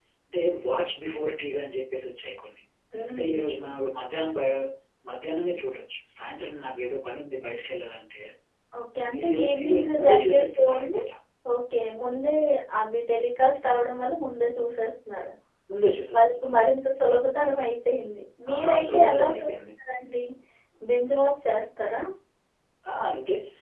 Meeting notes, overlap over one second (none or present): present